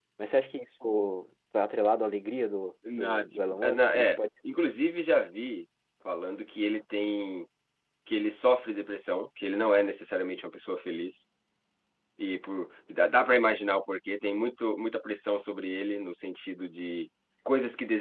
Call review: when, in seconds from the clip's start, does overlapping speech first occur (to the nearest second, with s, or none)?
3 s